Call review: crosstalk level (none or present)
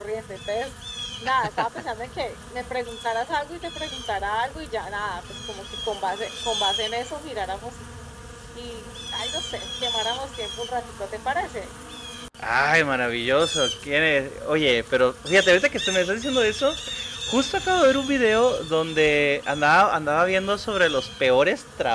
none